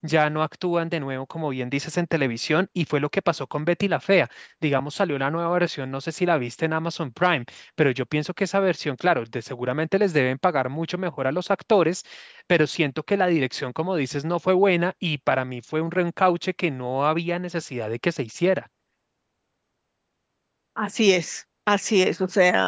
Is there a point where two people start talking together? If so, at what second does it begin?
none

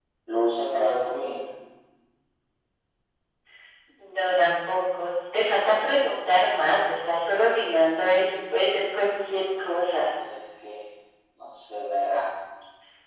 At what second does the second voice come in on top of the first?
none

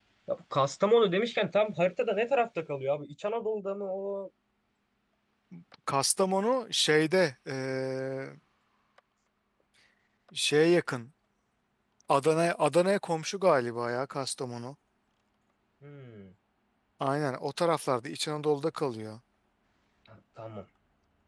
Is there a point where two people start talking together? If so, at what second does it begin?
none

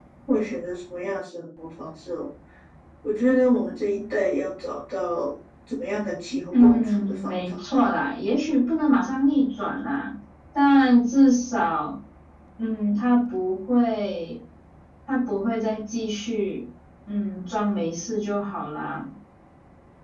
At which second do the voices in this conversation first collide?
6.5 s

